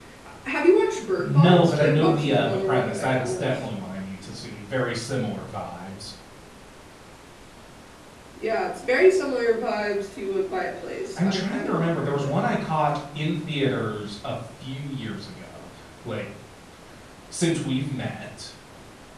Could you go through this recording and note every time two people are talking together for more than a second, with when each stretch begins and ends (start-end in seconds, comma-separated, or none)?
1.2-3.6, 11.2-12.4